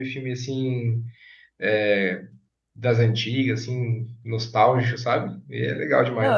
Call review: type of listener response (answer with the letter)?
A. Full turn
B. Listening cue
A